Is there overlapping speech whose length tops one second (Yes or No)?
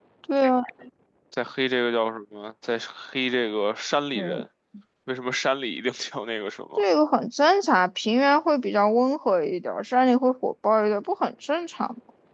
No